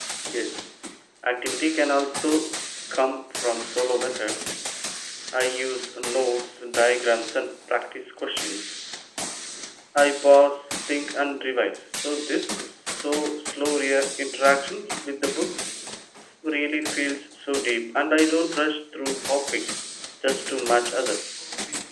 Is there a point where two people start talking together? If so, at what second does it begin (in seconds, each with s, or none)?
none